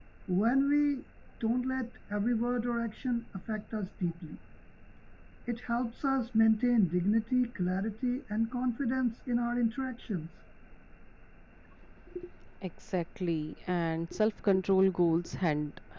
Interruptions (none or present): none